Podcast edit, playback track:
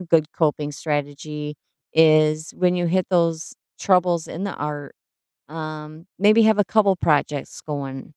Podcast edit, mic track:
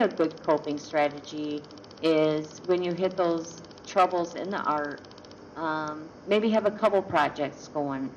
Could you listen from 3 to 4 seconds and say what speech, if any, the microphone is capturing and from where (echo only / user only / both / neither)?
echo only